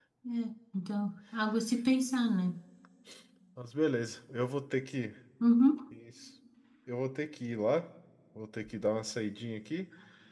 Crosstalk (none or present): none